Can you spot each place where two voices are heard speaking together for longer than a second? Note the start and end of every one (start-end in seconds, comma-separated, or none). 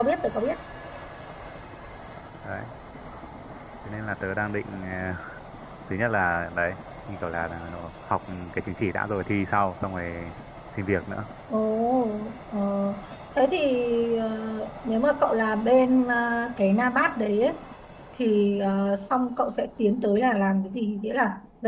none